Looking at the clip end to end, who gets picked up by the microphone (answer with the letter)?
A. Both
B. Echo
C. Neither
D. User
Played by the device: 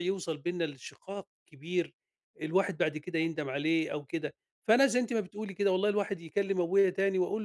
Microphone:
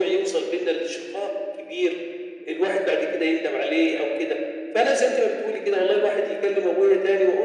B